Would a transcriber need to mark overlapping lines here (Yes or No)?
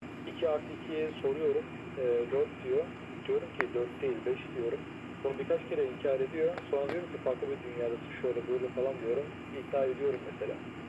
No